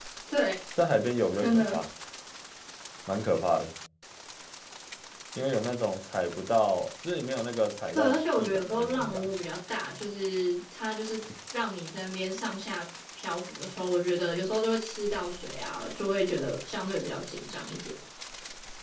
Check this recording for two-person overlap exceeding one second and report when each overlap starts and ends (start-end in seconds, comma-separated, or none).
7.9-9.2